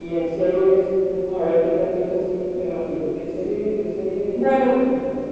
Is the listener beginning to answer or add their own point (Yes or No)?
Yes